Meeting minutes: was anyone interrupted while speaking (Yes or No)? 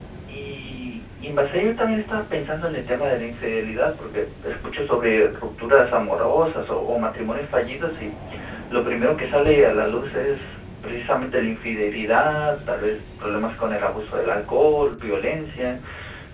No